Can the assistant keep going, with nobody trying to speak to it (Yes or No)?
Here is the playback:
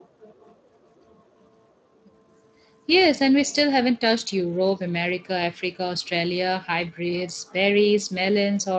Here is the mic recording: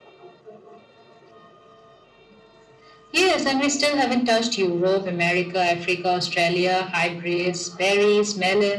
Yes